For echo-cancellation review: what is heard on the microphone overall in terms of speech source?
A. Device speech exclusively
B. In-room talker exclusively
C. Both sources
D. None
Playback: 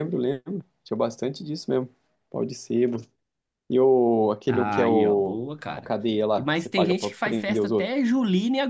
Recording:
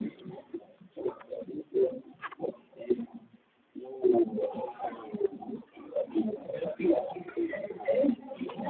A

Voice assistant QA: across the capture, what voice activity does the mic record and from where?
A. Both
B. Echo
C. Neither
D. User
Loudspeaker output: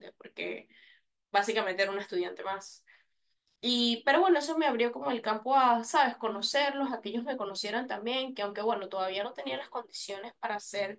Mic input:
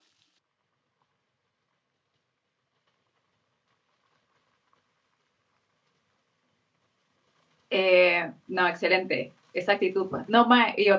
D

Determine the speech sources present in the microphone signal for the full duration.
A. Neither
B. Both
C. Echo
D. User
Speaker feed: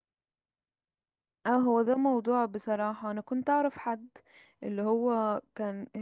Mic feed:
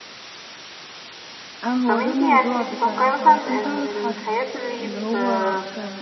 B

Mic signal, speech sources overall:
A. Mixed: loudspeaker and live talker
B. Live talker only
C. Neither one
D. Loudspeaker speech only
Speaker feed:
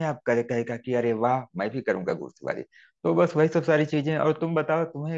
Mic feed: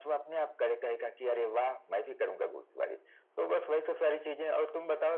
D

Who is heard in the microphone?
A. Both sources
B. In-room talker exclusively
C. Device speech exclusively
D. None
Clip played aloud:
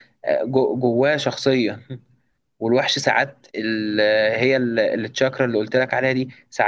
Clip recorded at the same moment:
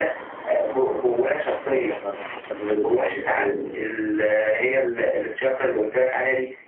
A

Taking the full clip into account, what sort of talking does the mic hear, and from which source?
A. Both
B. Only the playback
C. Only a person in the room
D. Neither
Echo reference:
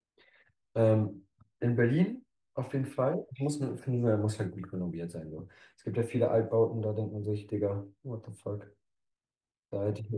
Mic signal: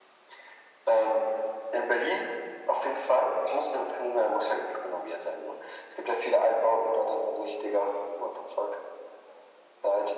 B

